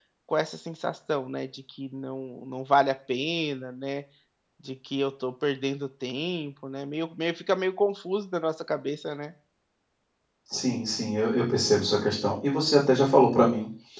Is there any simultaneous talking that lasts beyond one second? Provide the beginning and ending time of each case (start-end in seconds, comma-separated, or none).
none